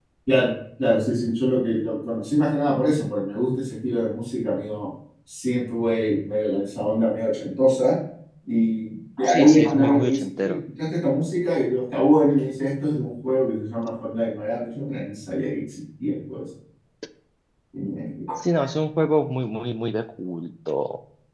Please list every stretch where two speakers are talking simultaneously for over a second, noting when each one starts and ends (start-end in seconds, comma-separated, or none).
9.3-10.6